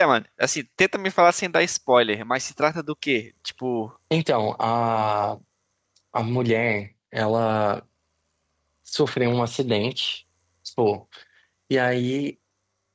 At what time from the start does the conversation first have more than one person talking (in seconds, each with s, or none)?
none